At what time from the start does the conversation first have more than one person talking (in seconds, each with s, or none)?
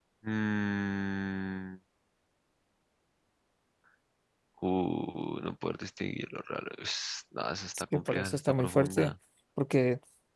7.7 s